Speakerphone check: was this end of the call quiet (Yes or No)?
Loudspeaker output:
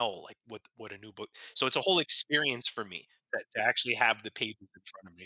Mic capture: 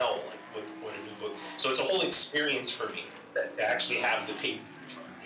Yes